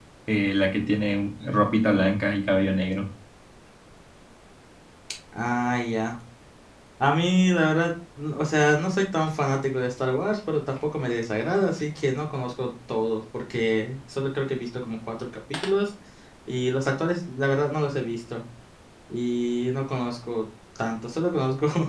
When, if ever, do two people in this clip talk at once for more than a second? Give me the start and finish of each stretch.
none

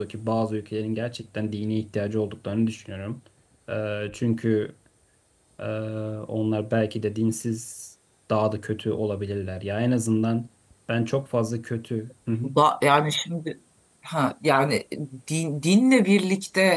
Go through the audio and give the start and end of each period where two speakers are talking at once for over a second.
none

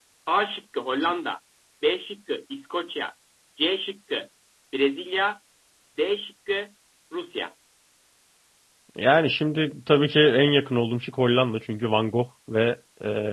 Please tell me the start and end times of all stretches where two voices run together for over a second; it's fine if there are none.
none

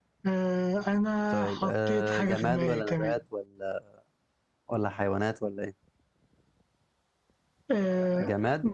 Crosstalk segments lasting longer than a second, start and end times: 1.3-3.2

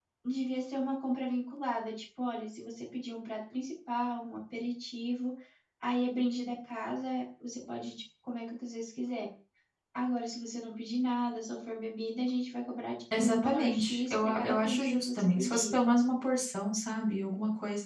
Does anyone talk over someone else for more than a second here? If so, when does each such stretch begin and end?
13.2-15.6

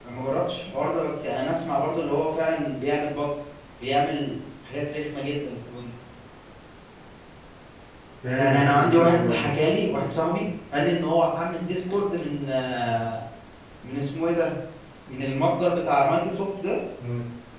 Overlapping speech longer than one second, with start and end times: 8.3-9.5

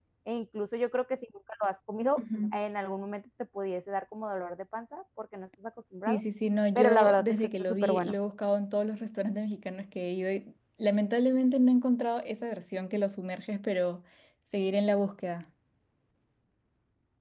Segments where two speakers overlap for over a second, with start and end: 6.8-8.2

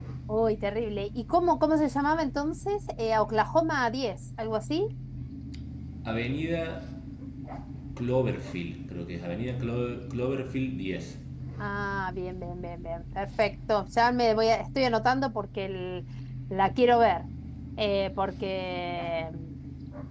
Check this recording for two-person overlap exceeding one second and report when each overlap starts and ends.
none

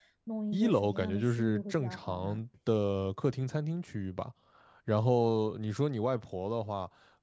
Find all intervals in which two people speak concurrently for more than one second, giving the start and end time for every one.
0.5-2.4

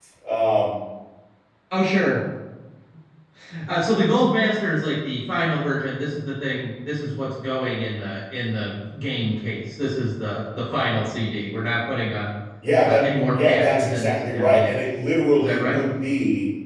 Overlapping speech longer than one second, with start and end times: 12.8-14.8

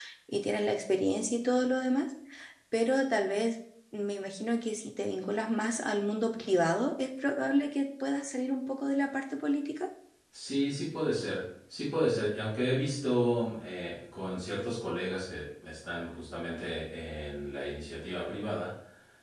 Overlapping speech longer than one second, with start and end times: none

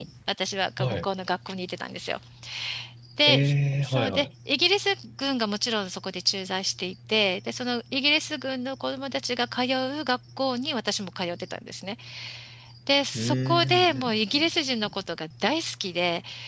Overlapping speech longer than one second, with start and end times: 13.1-14.5

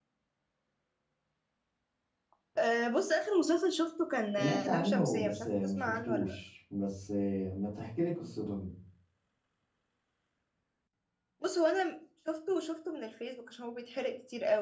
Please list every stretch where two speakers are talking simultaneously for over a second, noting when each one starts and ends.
4.4-6.4

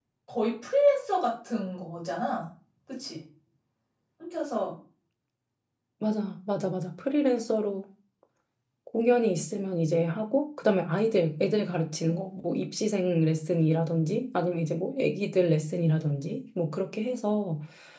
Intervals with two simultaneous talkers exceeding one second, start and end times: none

